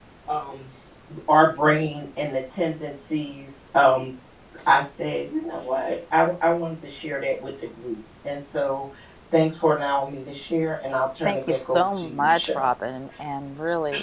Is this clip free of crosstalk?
No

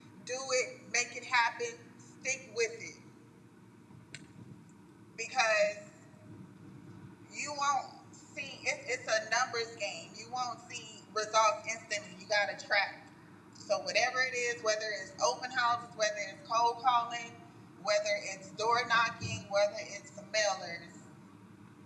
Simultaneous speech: No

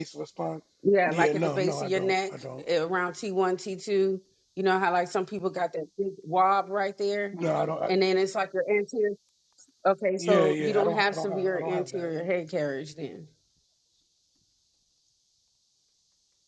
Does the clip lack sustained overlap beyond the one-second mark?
No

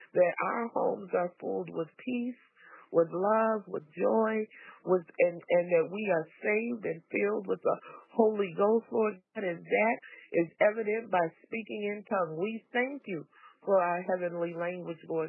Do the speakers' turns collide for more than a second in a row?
No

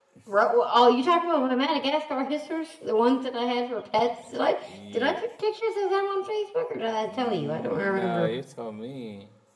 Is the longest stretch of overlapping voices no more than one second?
No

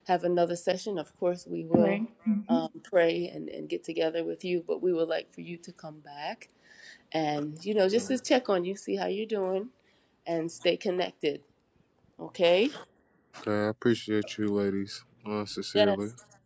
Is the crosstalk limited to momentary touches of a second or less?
Yes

